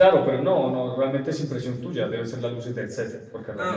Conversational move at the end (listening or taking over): taking over